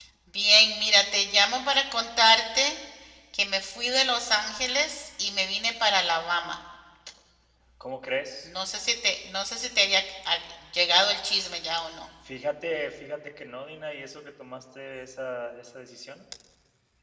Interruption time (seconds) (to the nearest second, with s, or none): none